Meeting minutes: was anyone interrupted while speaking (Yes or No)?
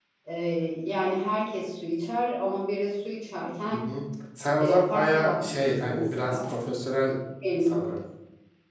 Yes